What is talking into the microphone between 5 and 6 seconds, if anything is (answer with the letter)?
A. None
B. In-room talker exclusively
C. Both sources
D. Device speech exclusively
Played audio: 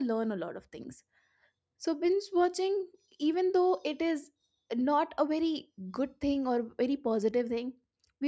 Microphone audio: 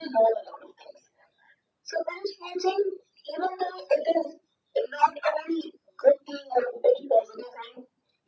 D